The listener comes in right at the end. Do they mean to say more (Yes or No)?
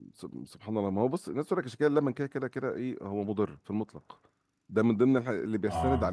No